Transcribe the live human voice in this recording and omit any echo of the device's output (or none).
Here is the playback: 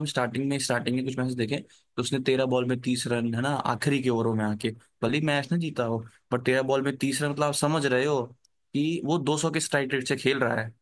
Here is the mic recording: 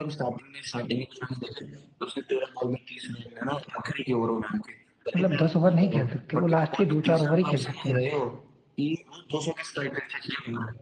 मतलब दस ओवर नहीं खेल सकते वो लास्ट के दो चार ओवर ही खेल सकते हैं